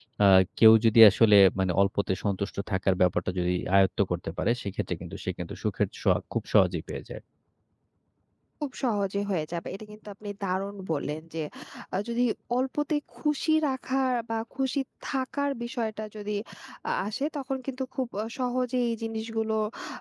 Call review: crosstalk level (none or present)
none